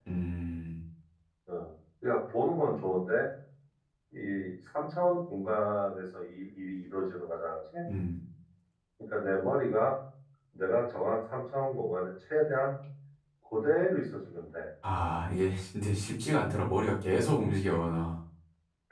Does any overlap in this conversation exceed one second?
No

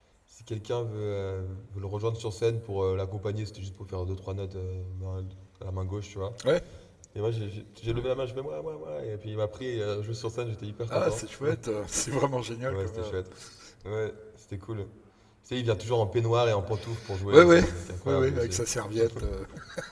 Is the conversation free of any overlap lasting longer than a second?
Yes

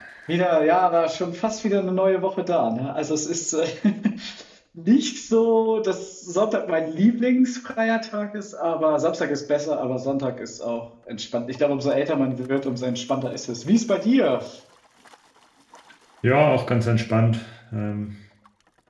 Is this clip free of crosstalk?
Yes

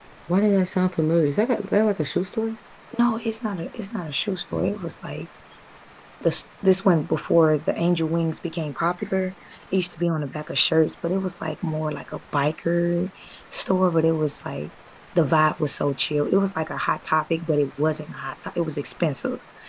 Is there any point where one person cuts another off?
No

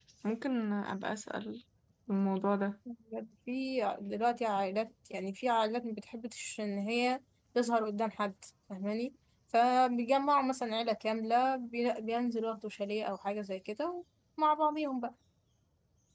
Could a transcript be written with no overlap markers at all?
Yes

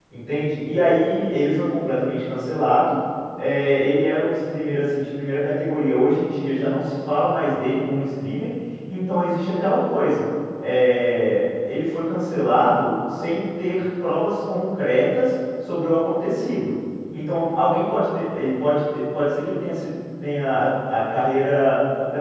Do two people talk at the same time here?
No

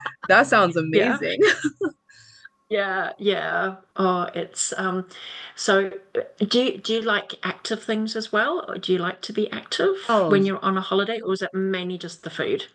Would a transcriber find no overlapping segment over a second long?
Yes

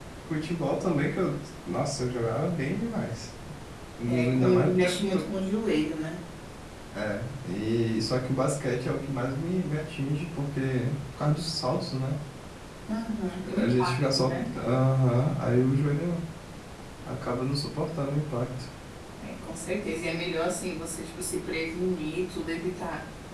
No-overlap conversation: No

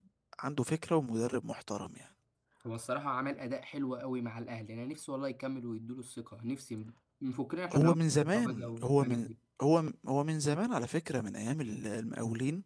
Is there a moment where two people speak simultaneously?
Yes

